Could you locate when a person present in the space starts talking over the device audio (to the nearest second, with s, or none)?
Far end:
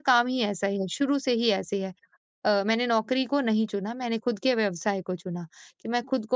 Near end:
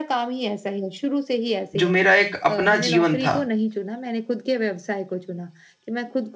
2 s